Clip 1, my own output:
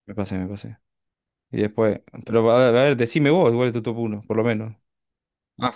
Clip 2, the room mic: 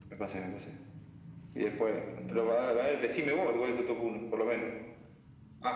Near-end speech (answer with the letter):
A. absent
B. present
A